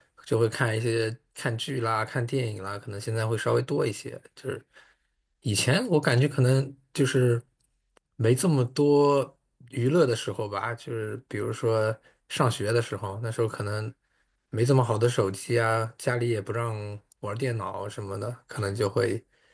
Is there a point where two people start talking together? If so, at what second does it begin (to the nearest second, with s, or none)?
none